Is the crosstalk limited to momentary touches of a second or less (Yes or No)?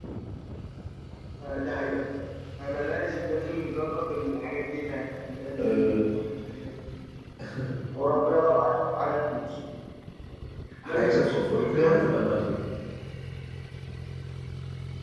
No